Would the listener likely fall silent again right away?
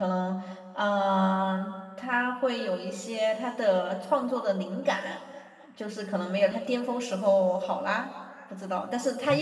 No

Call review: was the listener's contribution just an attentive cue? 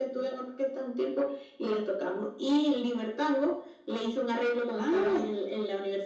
Yes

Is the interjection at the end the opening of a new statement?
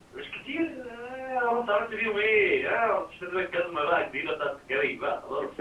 Yes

